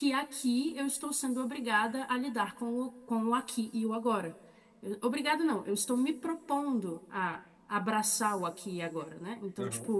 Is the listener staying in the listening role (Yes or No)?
Yes